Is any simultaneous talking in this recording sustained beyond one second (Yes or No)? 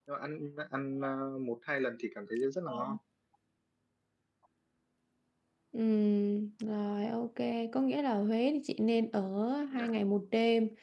No